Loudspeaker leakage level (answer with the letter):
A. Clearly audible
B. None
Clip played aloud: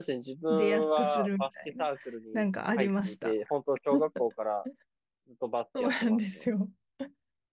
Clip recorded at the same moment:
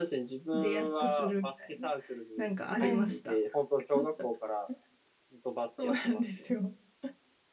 A